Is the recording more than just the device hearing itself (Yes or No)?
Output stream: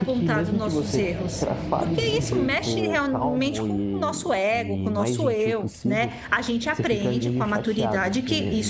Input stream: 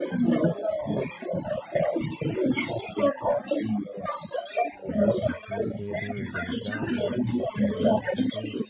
Yes